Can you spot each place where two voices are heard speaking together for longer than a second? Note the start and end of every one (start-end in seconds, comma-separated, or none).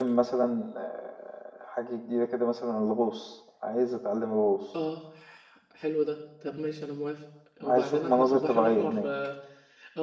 7.6-9.1